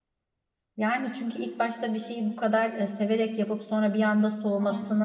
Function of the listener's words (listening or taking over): listening